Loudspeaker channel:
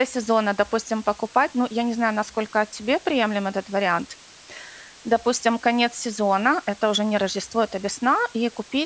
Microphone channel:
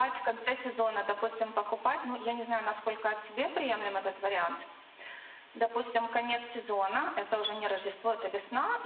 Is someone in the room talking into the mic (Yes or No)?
No